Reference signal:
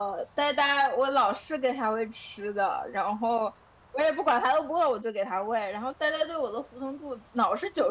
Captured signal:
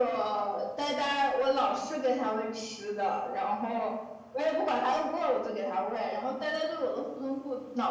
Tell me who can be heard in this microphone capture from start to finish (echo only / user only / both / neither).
echo only